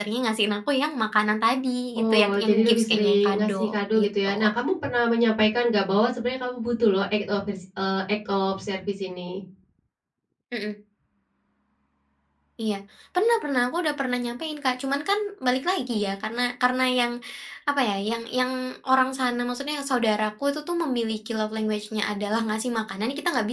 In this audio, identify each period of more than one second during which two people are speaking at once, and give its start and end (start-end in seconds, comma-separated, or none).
2.0-4.4